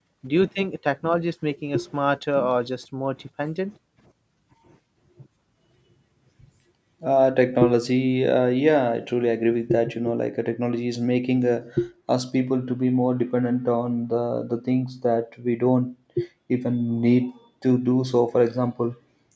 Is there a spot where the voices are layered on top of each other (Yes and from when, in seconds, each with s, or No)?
No